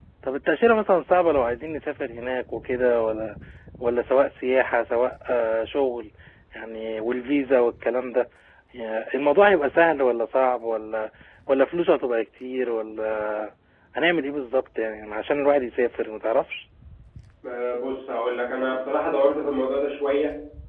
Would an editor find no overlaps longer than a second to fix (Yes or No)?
Yes